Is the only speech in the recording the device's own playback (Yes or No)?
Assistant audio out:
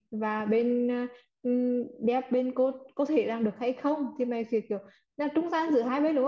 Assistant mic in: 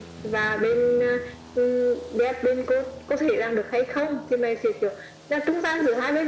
Yes